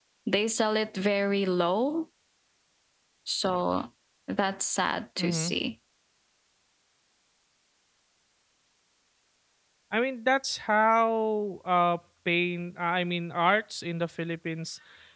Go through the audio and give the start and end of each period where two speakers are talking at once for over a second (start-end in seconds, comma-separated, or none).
none